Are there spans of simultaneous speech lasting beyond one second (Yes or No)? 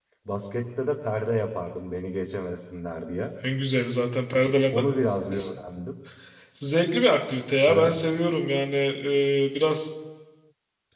No